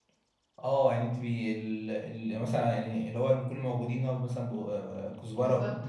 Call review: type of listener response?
listening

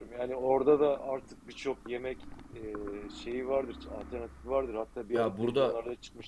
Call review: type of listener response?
listening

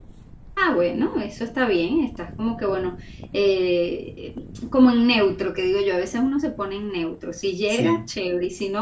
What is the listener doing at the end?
listening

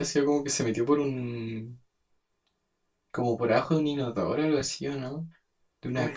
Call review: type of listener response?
taking over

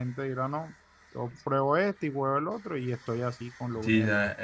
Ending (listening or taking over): taking over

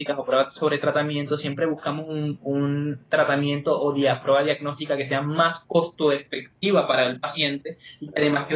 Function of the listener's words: listening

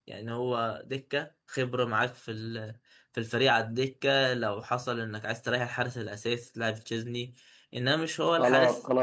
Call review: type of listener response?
taking over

